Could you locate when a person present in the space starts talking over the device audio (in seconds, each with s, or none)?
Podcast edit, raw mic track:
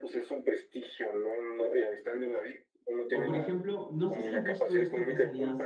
3.1 s